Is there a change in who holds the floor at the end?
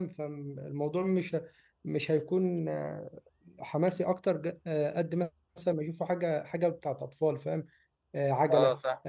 No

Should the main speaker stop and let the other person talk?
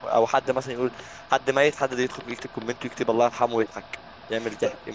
Yes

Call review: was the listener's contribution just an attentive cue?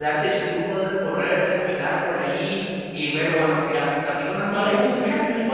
Yes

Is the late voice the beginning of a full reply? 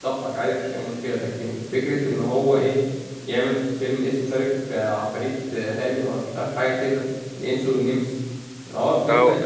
Yes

